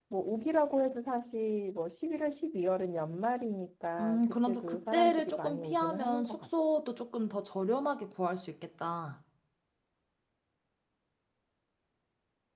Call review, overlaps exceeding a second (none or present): present